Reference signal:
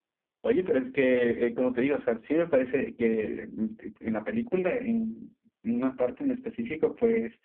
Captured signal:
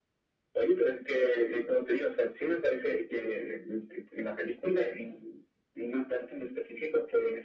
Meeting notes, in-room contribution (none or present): none